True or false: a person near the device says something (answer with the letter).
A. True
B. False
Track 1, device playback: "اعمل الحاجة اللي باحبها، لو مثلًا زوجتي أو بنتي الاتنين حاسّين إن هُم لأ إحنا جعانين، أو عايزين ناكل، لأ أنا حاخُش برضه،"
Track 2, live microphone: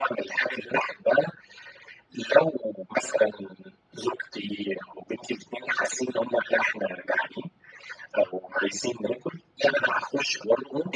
B